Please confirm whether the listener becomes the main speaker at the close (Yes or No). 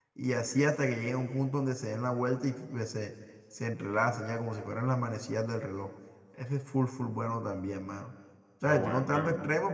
No